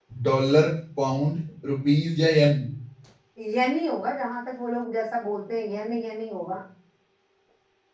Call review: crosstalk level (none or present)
none